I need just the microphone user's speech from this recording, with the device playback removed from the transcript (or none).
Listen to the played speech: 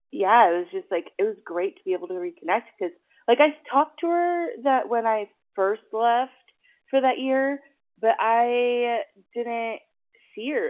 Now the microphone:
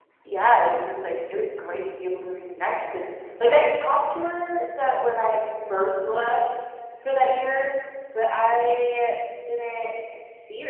none